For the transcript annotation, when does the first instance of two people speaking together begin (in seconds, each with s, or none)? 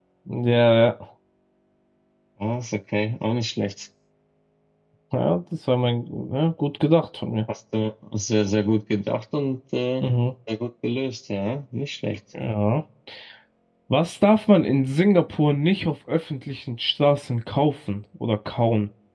none